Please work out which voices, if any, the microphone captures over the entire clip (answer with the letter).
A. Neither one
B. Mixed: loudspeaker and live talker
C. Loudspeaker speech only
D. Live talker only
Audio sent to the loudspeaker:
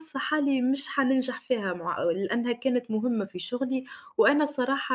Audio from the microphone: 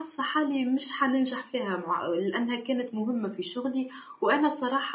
C